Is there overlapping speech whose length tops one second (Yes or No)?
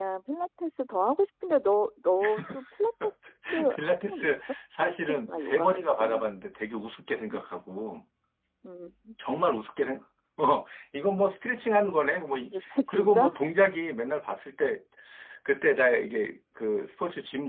Yes